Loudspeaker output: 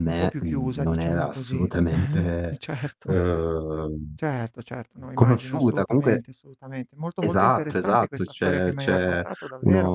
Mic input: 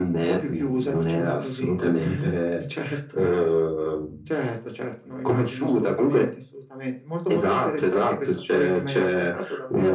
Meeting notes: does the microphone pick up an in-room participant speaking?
No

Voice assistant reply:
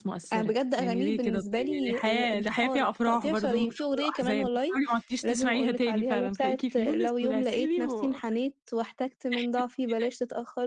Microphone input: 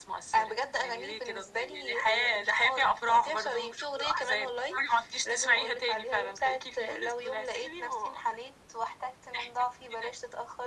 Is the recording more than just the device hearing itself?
No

